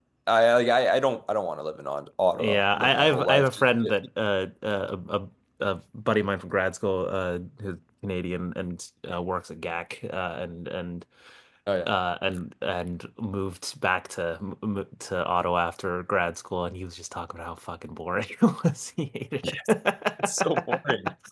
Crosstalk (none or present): present